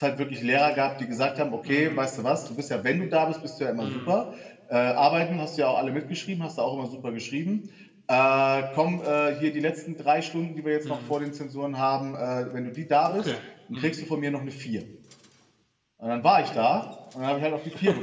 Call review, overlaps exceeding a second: none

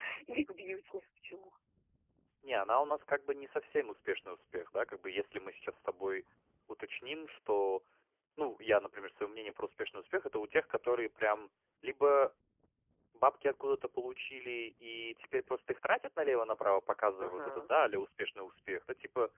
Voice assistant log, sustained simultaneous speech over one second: none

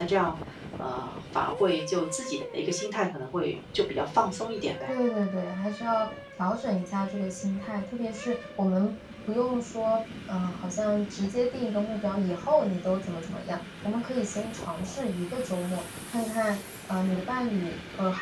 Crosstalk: none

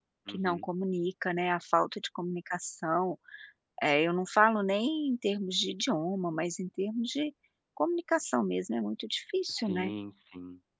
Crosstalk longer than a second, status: none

